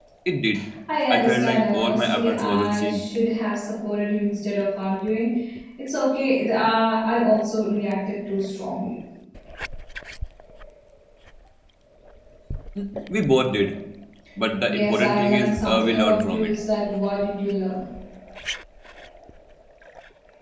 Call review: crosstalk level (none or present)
present